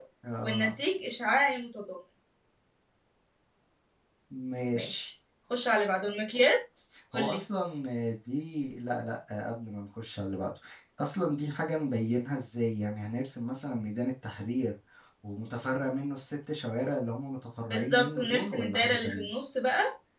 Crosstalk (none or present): present